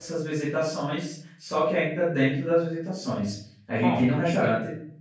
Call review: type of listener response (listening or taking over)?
listening